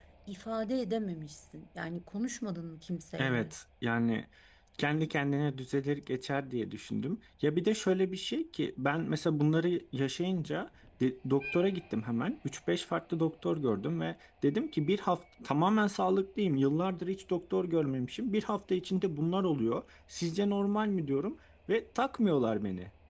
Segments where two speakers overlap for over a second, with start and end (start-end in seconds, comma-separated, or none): none